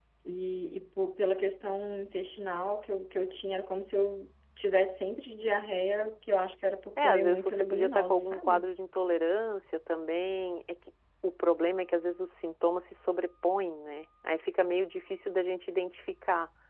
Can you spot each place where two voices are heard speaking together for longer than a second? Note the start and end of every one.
7.0-8.7

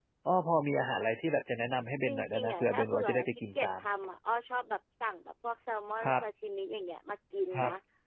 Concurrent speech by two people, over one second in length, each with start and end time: 2.0-3.7

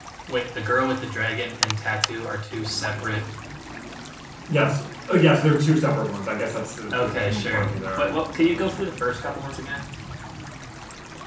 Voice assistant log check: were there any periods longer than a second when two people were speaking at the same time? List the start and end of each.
6.9-8.6

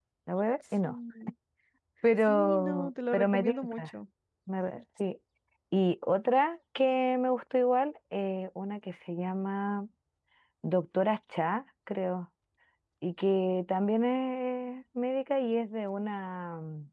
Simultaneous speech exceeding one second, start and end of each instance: 2.3-3.9

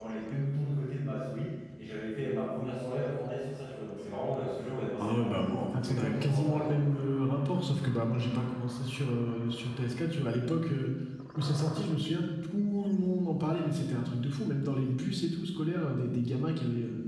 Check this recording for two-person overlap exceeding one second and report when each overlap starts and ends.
5.0-6.9

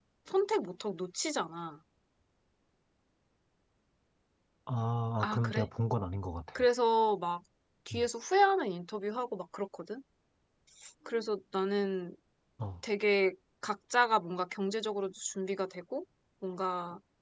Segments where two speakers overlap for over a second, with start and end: none

